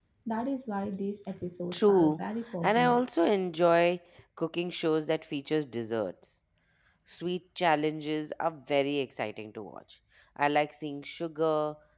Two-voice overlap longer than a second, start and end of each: 1.7-3.0

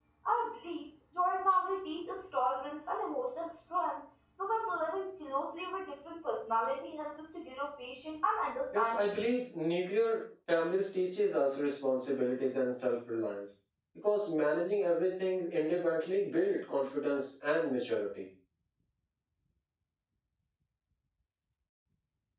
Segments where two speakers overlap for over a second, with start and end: none

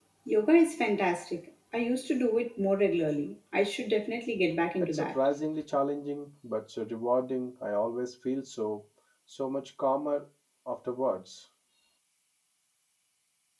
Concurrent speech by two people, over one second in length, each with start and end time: none

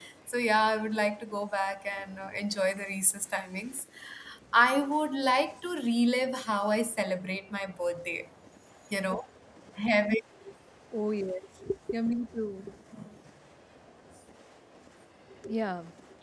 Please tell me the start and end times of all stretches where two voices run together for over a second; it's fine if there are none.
none

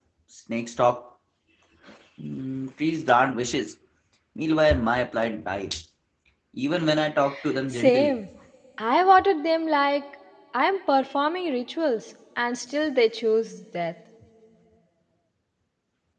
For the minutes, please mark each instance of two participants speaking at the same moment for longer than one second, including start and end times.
none

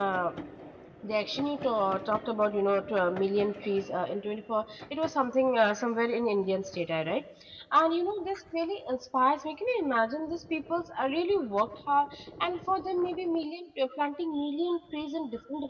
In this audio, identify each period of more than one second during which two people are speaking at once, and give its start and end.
none

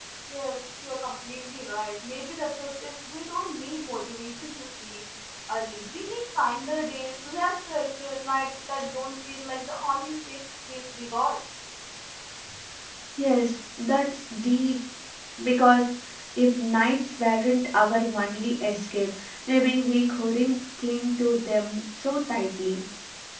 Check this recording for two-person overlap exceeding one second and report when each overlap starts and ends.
none

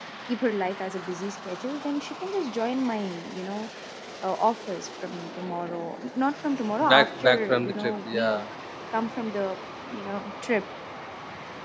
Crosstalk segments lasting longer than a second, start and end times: 6.9-8.5

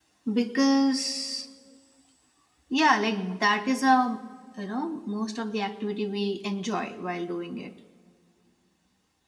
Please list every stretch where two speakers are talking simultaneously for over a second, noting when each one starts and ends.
none

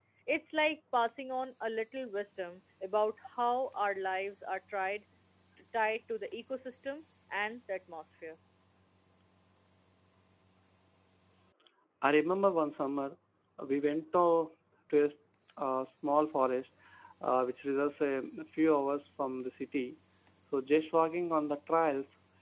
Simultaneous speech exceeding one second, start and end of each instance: none

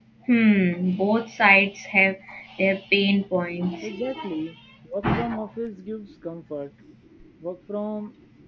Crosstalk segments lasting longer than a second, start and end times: none

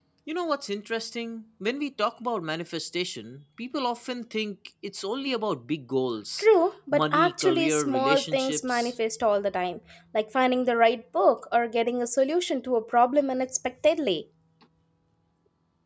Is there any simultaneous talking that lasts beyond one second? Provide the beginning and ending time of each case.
6.9-8.9

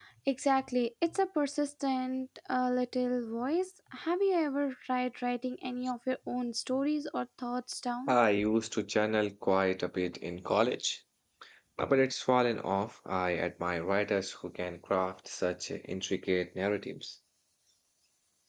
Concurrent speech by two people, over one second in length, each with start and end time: none

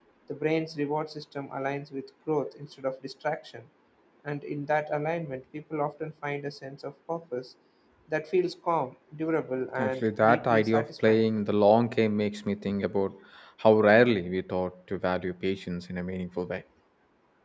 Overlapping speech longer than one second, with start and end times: 9.8-11.3

